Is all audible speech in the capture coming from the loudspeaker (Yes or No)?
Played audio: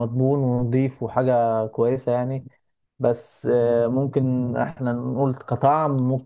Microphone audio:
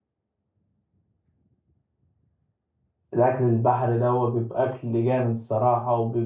No